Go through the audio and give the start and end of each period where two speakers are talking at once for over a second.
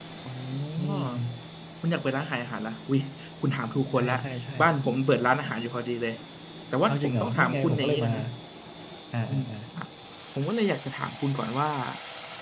6.9-8.1

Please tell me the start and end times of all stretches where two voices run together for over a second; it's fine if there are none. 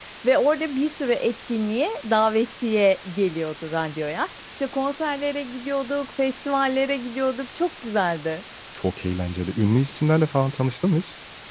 none

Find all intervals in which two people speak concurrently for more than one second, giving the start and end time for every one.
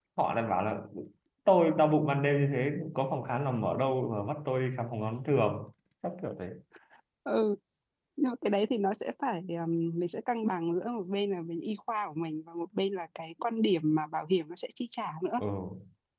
none

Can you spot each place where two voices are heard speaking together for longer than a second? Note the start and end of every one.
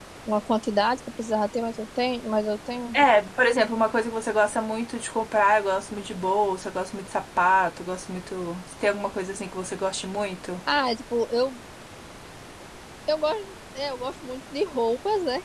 none

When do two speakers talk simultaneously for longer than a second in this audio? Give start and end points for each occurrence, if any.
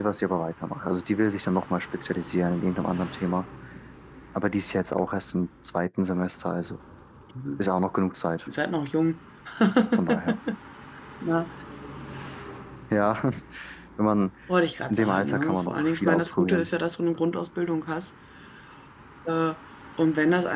14.9-16.7

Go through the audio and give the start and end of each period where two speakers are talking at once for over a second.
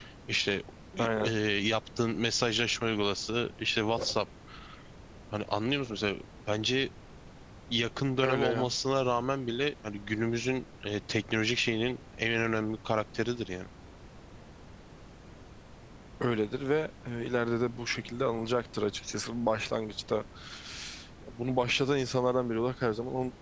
none

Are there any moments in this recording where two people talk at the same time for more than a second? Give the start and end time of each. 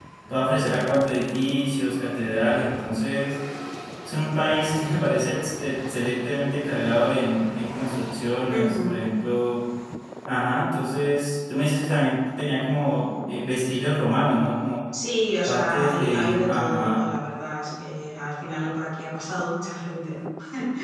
15.4-17.0

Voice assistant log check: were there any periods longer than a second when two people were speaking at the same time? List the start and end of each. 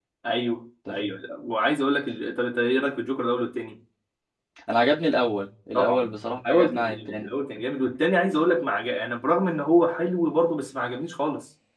5.7-7.4

